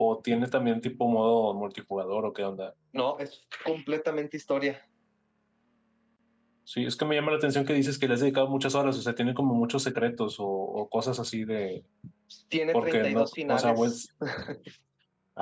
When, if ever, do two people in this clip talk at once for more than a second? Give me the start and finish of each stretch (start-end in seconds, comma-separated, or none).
12.7-13.9